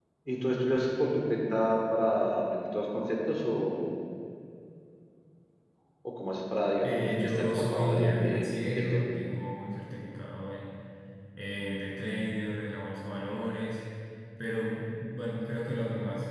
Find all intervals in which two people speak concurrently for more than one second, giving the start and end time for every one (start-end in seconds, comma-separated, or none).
6.8-9.1